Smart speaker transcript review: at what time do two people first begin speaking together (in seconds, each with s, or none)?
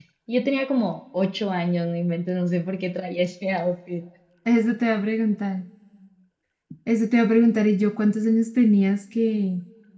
none